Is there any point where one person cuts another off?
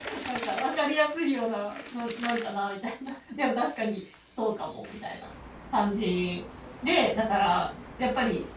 No

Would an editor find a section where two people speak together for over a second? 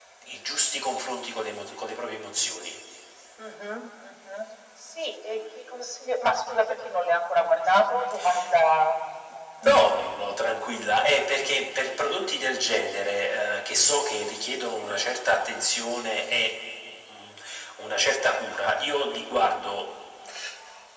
No

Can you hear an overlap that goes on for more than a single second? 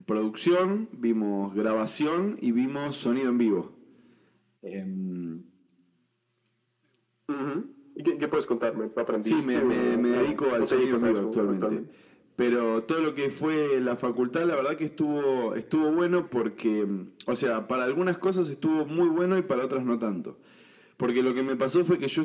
Yes, from 9.2 s

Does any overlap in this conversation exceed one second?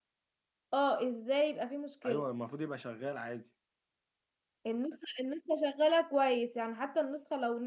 No

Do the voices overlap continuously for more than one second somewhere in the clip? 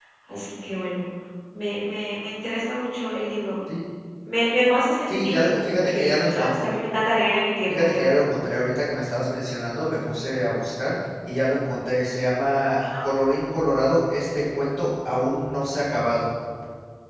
Yes, from 5.1 s

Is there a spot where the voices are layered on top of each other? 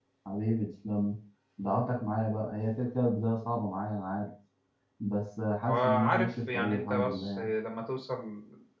Yes, from 5.6 s

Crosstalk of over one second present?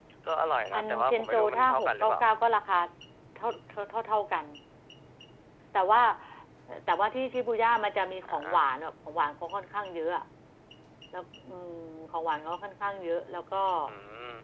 Yes, from 0.7 s

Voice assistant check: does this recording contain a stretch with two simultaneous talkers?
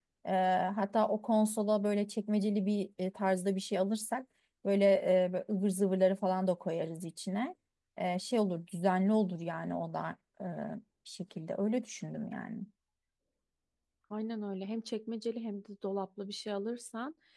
No

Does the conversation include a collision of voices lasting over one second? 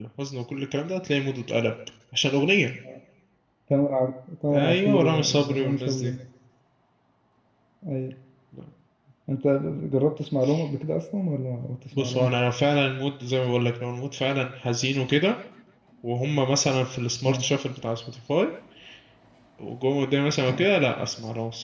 Yes, from 4.6 s

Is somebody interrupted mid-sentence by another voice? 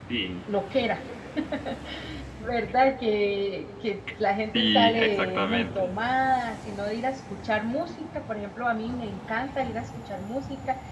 Yes, from 4.5 s

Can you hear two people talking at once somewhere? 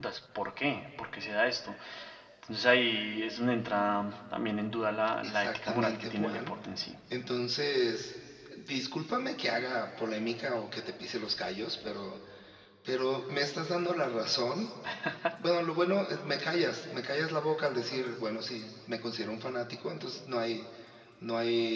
Yes, from 5.2 s

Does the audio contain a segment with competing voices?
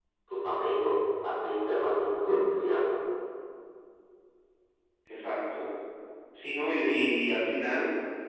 No

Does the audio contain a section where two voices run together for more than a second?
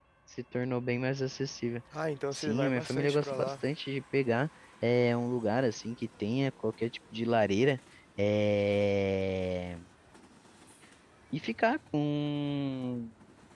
Yes, from 2.3 s

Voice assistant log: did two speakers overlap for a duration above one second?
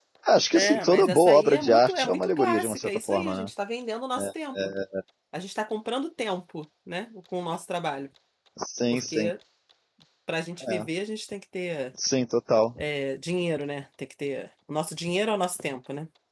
Yes, from 0.5 s

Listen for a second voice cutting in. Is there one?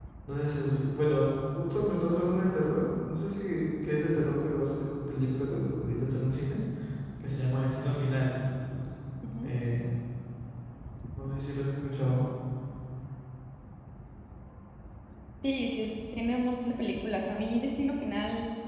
No

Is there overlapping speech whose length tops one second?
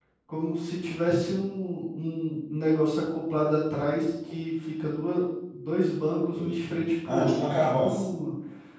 Yes, from 6.3 s

